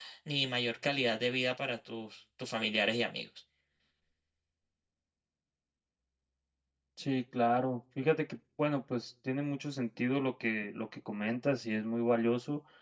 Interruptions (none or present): none